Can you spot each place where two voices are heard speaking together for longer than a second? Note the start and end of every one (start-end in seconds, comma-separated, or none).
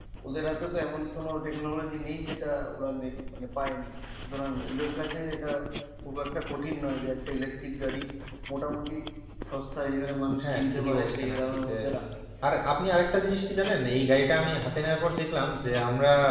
10.4-11.7